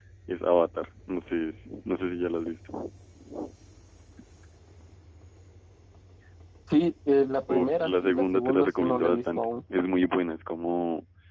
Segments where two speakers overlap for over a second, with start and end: 7.5-9.5

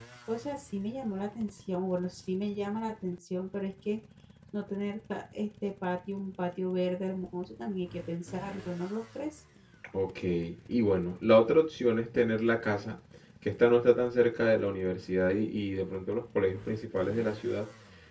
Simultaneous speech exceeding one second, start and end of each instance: none

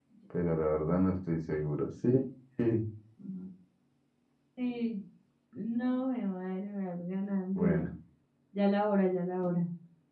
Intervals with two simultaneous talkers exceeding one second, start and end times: none

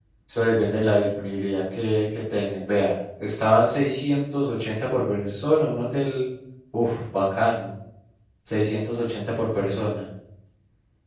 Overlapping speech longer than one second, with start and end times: none

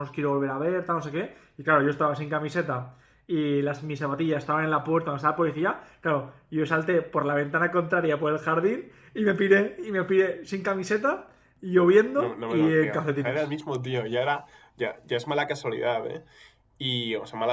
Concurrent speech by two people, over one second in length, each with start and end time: 12.2-13.5

